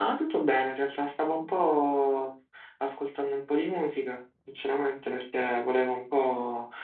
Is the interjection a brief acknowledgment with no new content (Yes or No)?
Yes